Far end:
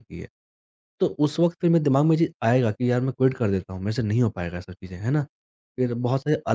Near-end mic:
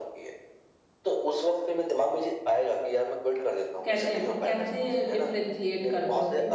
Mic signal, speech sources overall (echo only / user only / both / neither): both